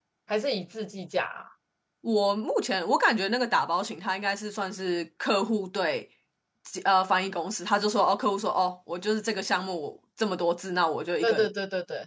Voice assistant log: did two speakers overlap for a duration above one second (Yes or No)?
No